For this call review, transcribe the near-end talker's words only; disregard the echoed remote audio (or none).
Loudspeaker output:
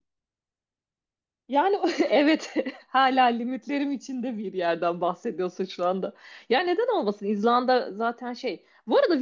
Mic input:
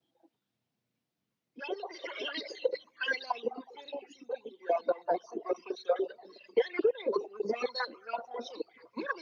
none